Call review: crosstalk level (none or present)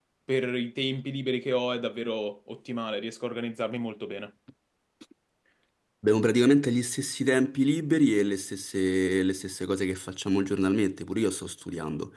none